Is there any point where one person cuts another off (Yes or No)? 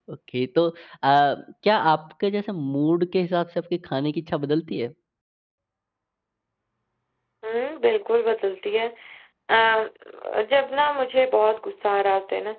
No